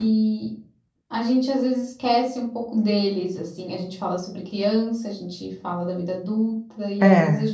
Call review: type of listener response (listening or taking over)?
listening